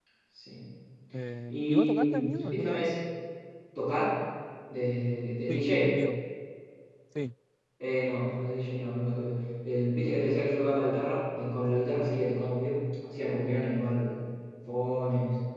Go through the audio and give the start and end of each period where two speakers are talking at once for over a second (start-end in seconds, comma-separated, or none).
1.5-2.9